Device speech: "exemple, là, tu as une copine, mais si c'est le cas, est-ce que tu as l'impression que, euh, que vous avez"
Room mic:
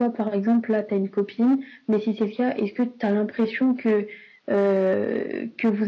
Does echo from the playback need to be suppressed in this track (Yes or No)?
Yes